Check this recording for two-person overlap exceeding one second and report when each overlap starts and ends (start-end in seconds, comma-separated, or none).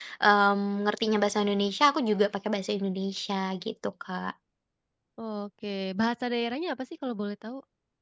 none